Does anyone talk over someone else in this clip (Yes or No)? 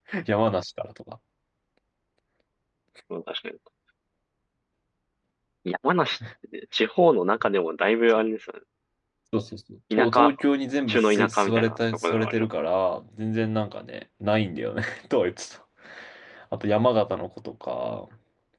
Yes